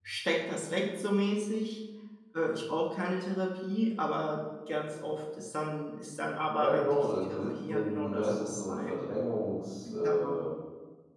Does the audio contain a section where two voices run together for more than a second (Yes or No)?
Yes